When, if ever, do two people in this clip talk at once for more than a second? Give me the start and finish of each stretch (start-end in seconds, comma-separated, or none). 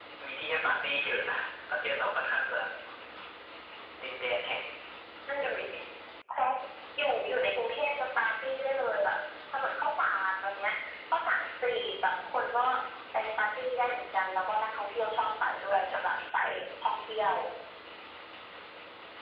15.7-16.9